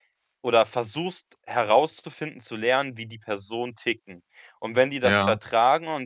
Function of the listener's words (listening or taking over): listening